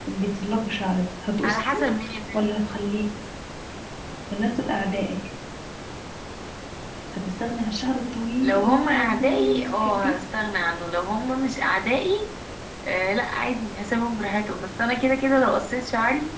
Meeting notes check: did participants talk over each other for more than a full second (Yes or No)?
Yes